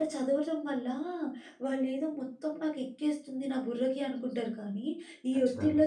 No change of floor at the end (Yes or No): Yes